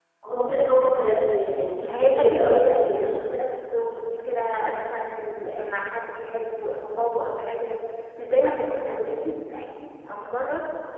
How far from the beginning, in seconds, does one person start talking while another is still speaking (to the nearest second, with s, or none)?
2 s